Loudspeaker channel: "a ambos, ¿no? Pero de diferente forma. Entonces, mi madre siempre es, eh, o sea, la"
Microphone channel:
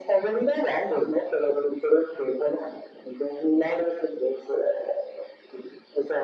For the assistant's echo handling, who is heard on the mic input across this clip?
echo only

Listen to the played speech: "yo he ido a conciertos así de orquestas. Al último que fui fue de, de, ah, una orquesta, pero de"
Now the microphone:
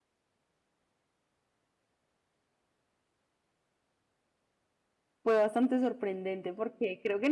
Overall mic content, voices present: user only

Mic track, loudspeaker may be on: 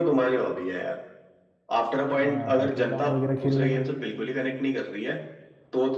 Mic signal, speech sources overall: both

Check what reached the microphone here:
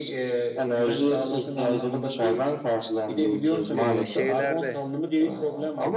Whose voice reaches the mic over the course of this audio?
both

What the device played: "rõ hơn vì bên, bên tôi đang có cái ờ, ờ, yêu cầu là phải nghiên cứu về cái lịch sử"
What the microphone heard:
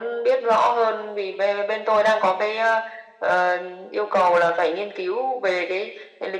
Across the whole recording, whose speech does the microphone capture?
echo only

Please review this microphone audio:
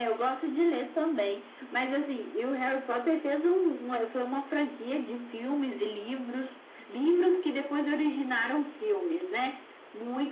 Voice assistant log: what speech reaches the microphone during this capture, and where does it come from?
echo only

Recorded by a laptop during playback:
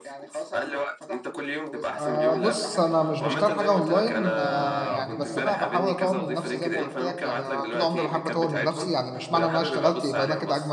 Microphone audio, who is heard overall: both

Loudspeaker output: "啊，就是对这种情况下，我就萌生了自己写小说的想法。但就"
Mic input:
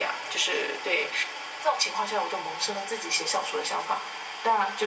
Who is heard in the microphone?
echo only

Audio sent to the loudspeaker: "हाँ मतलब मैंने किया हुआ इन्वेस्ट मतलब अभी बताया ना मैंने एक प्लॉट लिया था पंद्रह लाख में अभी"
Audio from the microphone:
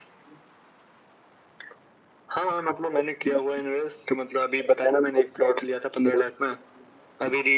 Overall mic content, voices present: echo only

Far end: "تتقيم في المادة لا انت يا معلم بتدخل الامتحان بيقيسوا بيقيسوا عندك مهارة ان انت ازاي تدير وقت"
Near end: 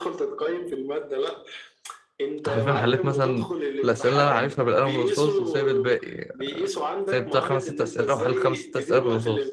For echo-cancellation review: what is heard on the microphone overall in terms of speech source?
both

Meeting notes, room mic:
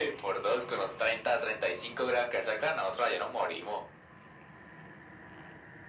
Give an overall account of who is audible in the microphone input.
echo only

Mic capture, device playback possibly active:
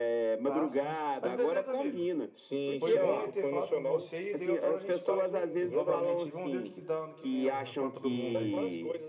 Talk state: both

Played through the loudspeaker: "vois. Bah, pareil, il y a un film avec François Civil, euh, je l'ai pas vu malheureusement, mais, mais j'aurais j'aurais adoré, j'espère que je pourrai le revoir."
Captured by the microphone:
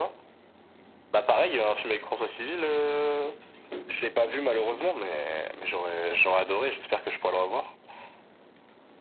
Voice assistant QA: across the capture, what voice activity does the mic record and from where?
echo only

